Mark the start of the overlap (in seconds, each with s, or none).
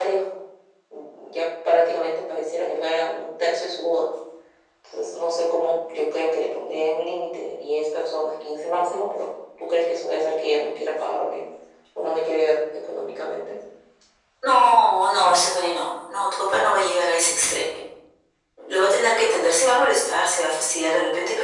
none